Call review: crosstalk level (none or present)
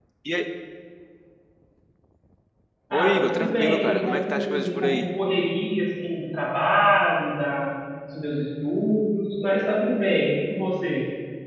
present